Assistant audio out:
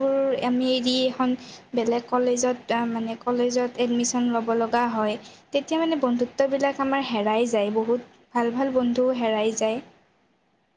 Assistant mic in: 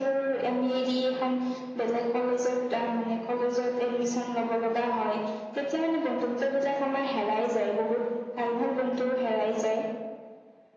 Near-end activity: none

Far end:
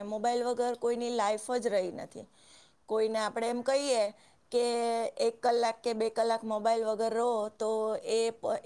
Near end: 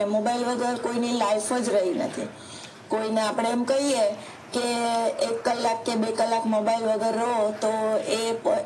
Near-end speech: none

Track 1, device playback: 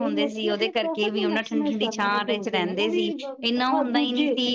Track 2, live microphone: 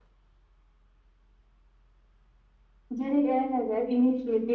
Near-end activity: present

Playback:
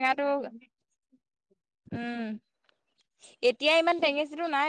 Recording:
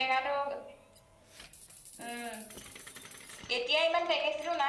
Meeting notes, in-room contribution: none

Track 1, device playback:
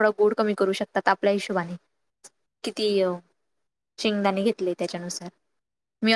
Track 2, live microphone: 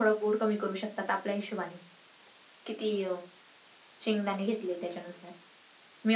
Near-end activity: none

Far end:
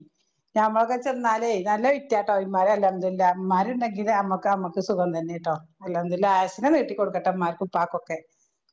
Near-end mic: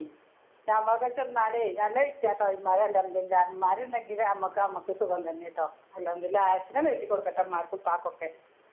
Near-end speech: none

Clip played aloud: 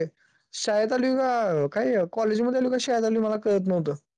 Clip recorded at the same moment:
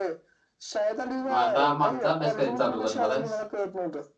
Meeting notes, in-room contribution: present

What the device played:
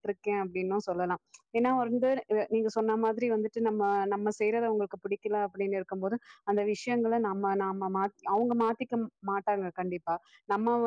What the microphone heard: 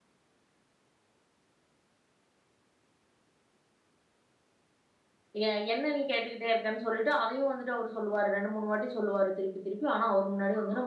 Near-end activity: present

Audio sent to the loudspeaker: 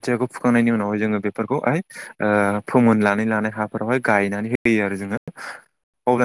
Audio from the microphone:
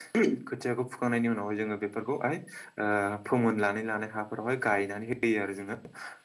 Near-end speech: none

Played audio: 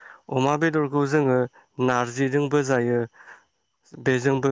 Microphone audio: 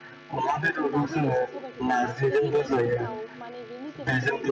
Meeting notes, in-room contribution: present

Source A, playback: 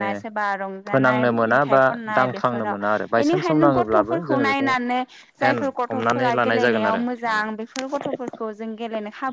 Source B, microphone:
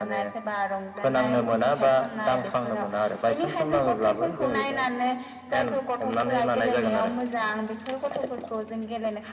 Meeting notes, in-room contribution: none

